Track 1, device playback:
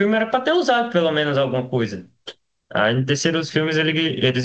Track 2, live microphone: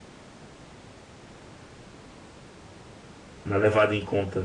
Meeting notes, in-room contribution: present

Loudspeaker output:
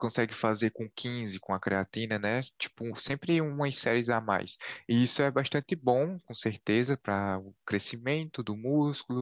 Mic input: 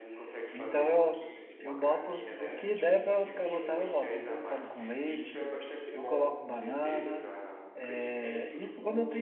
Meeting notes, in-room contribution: present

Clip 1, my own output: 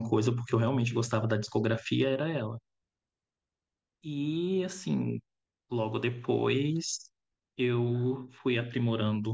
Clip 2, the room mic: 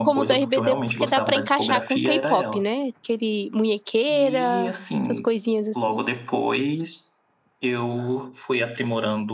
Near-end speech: present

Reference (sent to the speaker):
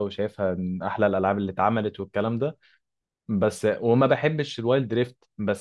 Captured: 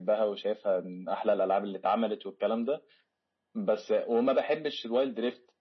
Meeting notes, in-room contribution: none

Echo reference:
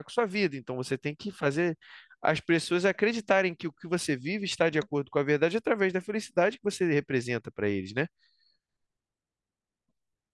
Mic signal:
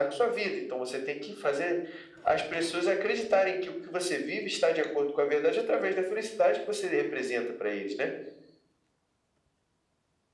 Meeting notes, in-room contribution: none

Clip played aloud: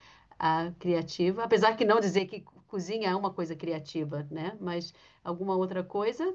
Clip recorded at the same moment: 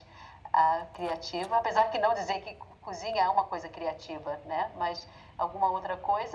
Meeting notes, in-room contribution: none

